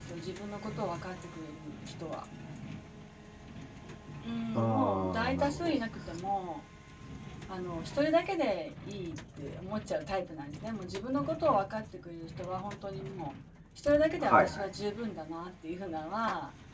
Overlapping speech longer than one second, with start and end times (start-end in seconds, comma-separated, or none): 4.5-5.8